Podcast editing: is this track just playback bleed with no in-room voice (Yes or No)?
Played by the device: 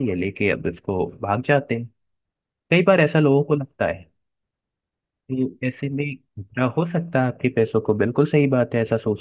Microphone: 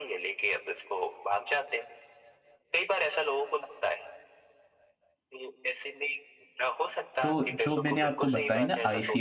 No